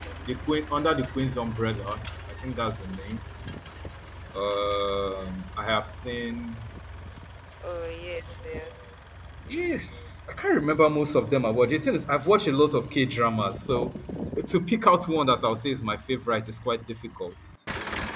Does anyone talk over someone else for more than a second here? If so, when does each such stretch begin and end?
none

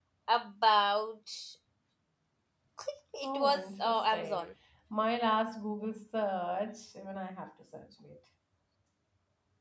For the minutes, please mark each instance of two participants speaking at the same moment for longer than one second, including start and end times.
3.2-4.4

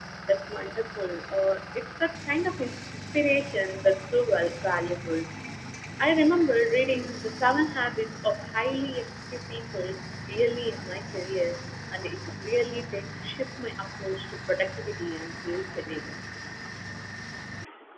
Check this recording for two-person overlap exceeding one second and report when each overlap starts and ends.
none

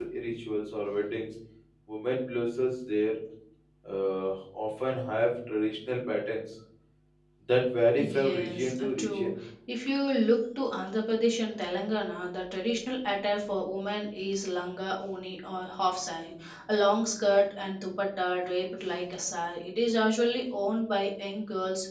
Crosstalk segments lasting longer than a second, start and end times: 8.0-9.3

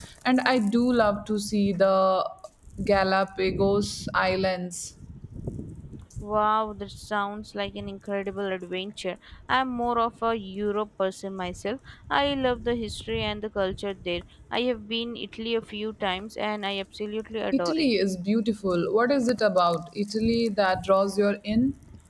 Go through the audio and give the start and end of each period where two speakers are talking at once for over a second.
none

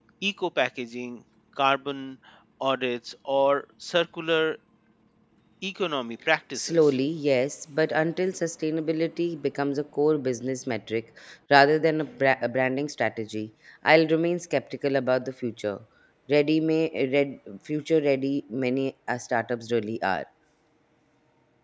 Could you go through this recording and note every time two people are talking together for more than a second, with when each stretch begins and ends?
none

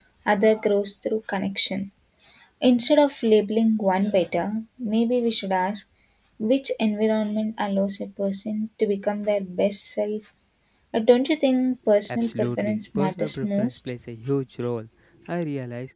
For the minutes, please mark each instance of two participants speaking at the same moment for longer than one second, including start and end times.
12.1-13.8

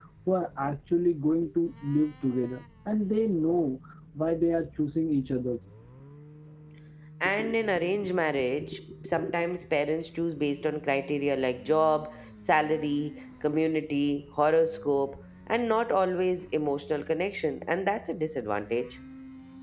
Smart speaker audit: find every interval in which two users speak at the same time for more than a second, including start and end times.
none

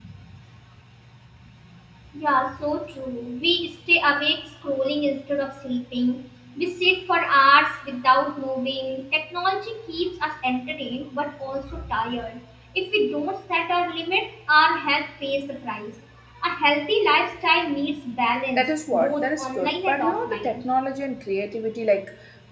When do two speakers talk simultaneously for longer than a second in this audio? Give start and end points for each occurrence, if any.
18.6-20.6

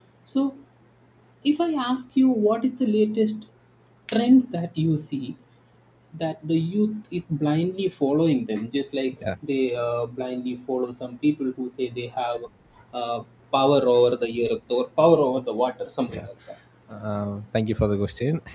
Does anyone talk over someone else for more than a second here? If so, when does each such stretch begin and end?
none

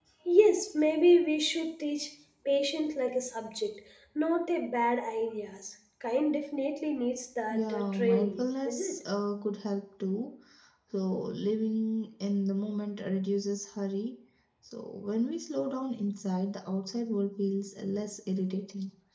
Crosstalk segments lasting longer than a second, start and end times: 7.5-9.0

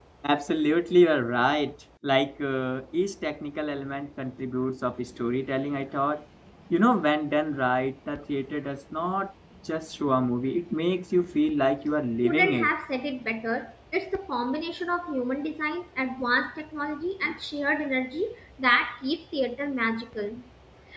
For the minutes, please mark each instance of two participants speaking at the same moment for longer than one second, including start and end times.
none

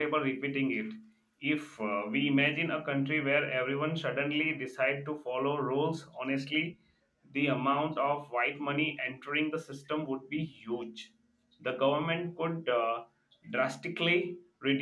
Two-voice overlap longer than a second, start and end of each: none

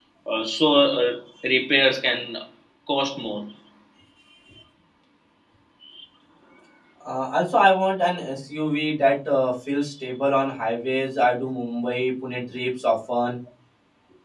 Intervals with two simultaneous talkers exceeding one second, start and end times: none

